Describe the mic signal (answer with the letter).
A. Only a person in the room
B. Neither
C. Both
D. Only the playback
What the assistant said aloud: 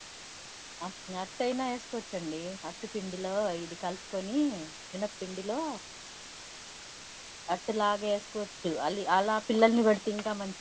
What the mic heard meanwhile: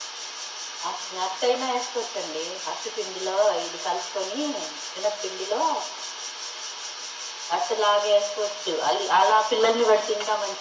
D